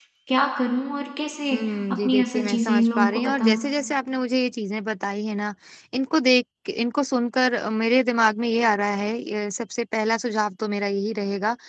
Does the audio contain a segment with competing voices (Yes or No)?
Yes